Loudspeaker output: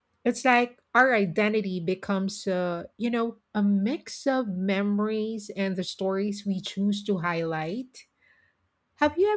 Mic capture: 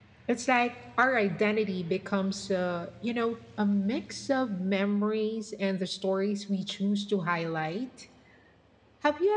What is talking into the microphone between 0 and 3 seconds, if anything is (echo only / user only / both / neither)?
echo only